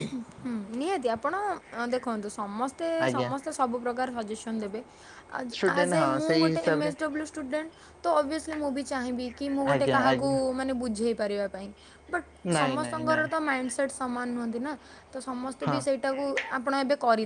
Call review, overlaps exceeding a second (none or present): present